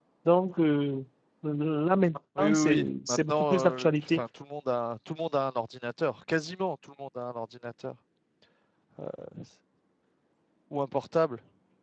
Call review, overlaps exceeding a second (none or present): present